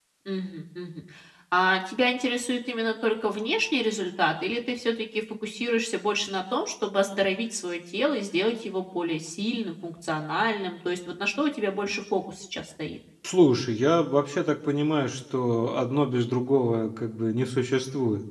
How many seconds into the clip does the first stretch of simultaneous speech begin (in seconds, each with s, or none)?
none